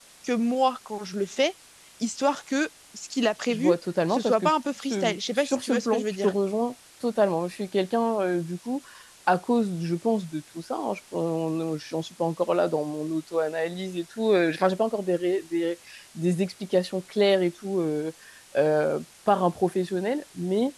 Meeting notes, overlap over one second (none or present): present